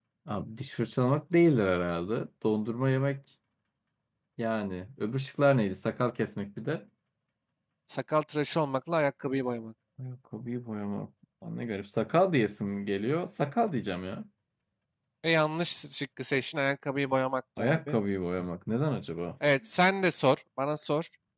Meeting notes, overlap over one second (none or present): none